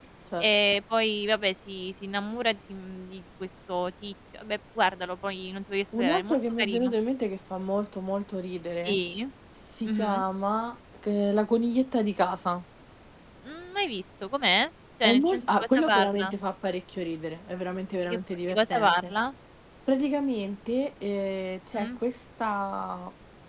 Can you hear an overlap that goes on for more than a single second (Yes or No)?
Yes